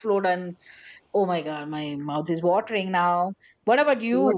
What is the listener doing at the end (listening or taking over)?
taking over